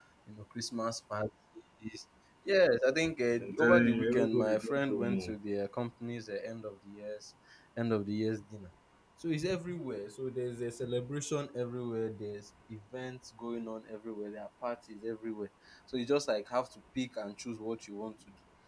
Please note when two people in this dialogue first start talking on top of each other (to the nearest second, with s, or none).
3 s